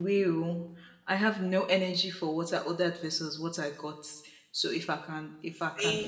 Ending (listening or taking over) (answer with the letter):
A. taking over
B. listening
B